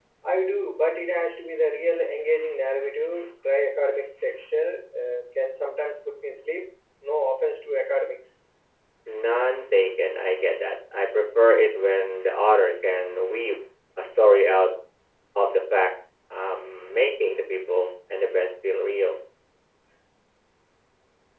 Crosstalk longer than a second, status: none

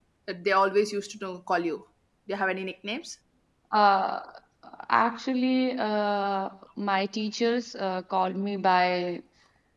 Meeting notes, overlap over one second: none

